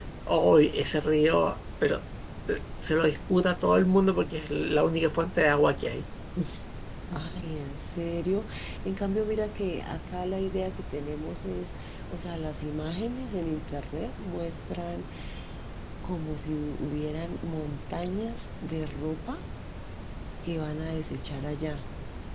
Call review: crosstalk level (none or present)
none